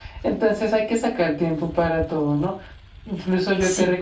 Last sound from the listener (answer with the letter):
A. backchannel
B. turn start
A